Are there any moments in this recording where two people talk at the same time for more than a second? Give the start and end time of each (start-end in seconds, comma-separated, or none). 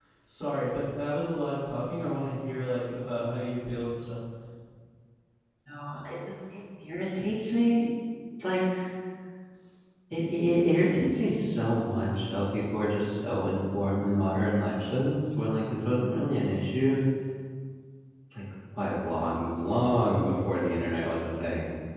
none